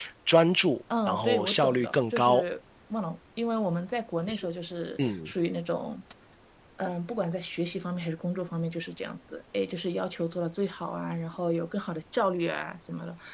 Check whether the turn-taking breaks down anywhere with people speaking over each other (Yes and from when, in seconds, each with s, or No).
Yes, from 1.1 s